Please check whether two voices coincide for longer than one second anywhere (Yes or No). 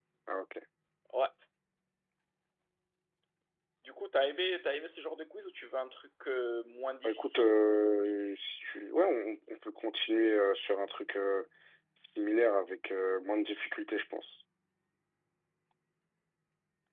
No